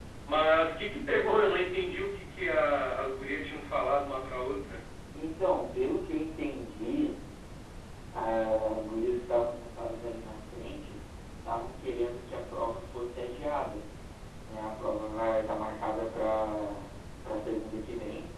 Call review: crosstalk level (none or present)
none